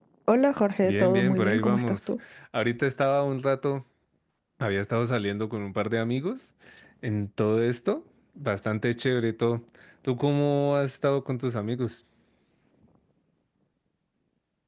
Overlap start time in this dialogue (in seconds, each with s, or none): 0.8 s